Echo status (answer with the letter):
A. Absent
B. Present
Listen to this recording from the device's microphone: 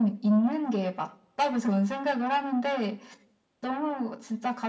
B